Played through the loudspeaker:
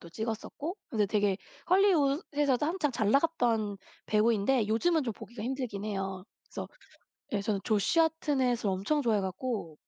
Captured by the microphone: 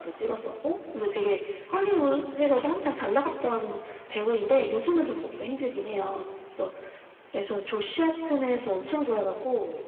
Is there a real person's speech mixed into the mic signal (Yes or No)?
No